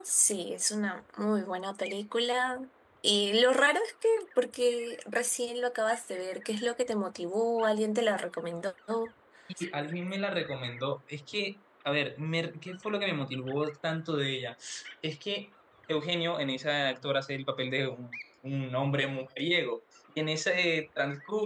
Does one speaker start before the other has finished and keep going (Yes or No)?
No